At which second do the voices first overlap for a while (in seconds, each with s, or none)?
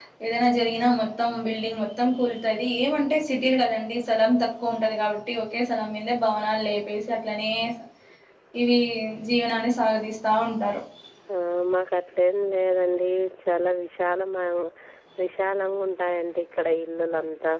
none